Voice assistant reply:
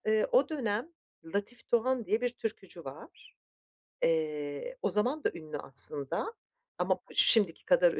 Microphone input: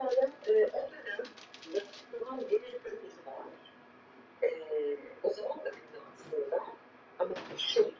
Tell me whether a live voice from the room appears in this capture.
No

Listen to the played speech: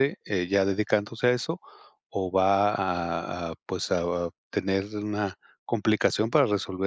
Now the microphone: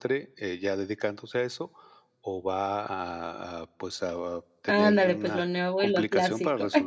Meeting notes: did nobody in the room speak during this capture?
No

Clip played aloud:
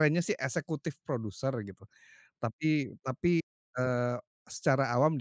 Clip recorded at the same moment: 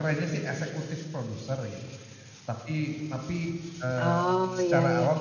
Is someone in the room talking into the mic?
Yes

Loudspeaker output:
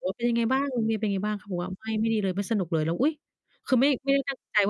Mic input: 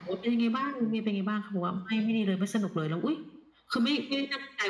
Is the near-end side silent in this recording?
Yes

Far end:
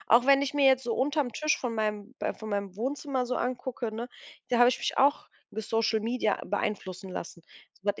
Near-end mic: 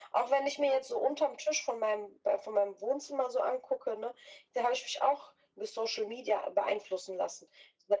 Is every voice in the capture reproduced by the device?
Yes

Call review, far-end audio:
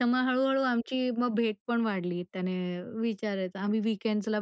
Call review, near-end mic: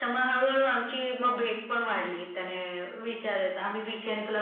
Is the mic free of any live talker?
Yes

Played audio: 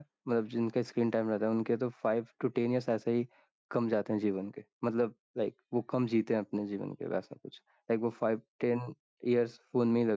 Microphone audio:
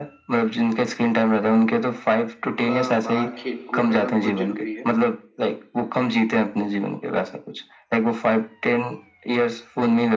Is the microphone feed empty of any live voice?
No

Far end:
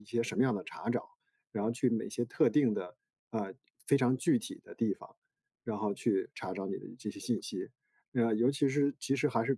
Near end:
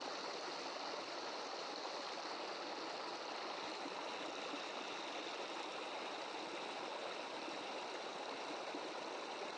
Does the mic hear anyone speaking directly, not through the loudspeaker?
No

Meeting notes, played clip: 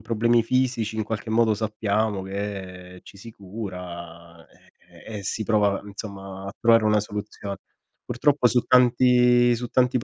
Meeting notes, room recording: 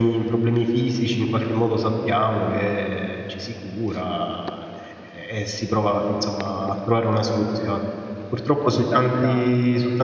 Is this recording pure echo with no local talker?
No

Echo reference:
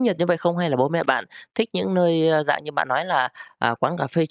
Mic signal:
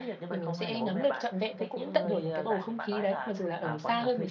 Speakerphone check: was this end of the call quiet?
No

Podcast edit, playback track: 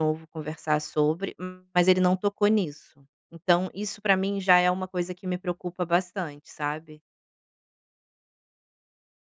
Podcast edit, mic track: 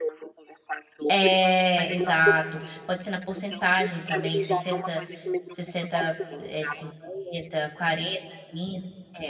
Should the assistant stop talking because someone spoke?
Yes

